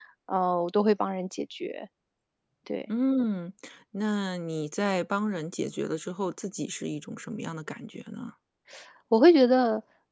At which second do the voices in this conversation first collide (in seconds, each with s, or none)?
none